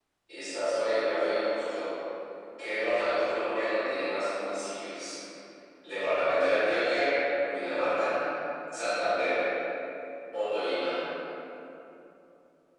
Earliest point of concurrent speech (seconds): none

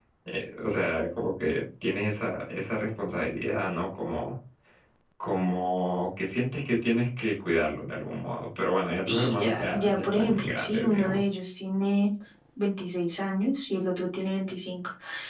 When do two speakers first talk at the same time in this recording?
9.0 s

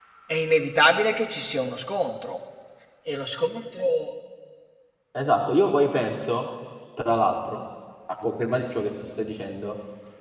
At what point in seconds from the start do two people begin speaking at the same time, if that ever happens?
none

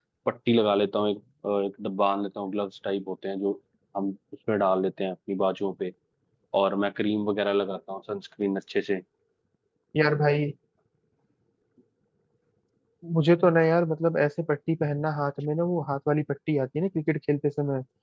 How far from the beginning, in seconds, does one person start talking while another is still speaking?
none

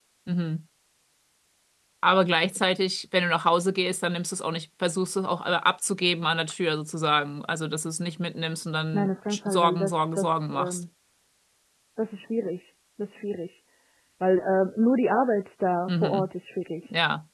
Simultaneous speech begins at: 8.9 s

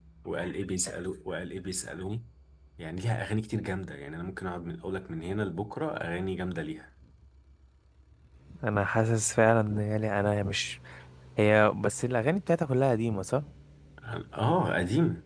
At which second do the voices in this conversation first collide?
none

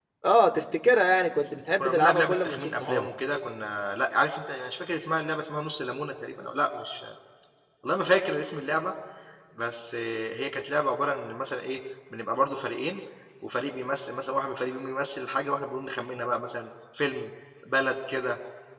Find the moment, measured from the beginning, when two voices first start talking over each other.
1.8 s

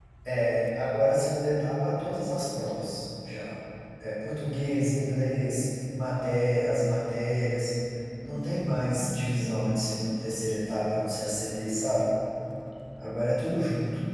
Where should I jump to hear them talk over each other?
none

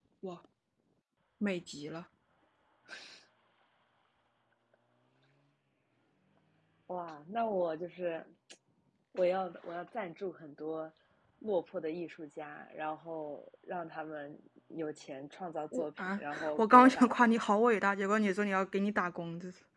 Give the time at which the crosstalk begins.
15.7 s

